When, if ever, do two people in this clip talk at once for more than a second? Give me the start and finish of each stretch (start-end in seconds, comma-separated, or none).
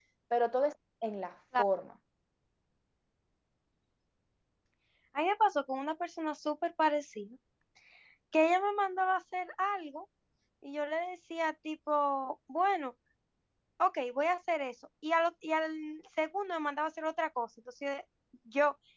none